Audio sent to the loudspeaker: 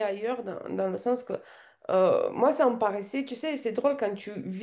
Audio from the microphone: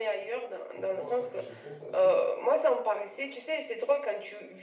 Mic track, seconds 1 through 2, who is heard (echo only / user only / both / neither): both